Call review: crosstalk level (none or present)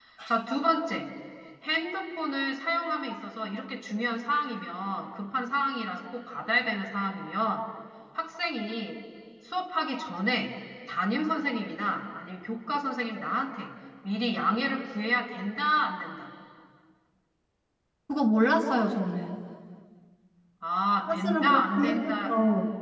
present